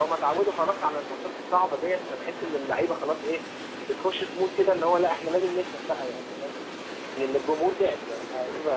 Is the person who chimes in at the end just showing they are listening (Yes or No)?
Yes